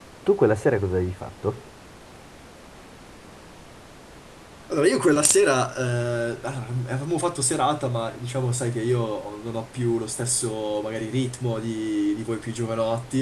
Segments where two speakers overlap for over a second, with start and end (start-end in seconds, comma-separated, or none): none